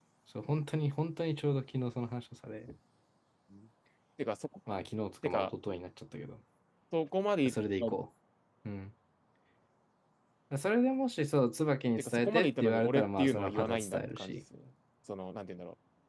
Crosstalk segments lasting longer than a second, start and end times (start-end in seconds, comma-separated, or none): 12.0-14.3